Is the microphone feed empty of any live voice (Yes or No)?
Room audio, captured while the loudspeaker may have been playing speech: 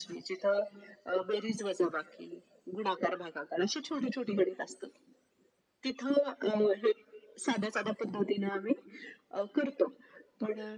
Yes